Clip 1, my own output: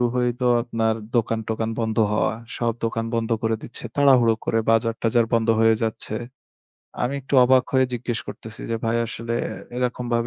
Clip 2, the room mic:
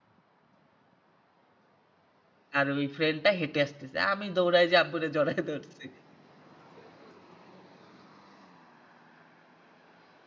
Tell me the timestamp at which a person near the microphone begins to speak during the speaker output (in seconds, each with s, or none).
2.6 s